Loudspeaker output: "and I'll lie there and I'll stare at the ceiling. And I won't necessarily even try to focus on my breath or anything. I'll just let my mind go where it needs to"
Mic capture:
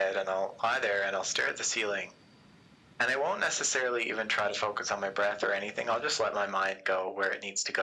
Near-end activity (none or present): none